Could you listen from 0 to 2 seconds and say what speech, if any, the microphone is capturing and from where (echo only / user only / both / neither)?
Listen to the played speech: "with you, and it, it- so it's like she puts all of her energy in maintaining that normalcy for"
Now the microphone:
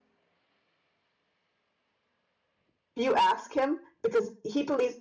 neither